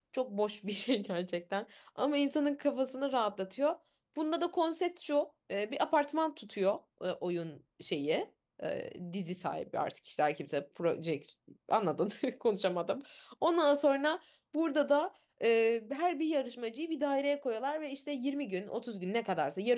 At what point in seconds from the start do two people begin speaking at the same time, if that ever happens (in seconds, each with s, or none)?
none